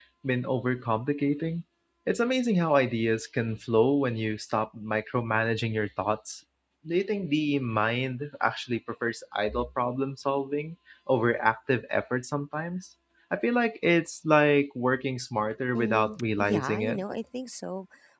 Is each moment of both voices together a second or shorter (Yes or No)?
No